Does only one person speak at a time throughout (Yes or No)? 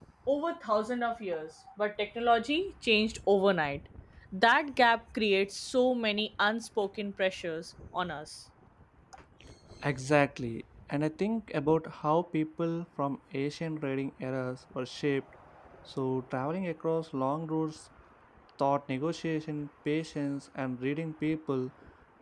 Yes